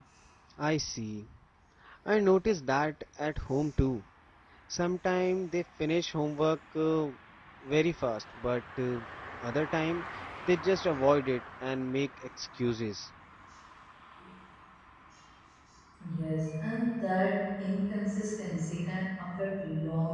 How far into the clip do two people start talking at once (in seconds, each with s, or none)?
none